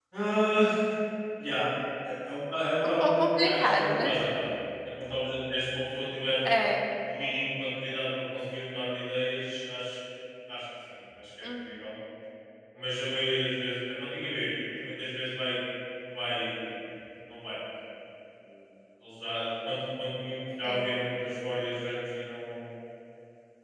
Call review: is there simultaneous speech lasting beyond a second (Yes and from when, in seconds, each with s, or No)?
Yes, from 2.8 s